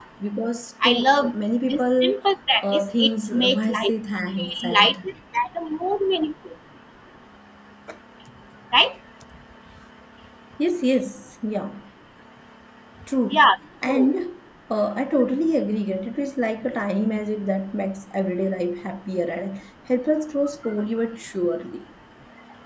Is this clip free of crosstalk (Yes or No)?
No